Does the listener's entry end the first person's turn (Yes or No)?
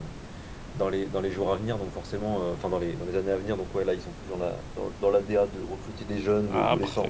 Yes